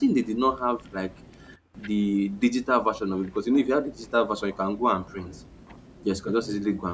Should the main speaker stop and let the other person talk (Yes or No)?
No